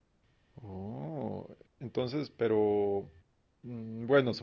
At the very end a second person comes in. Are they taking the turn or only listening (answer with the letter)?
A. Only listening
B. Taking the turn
A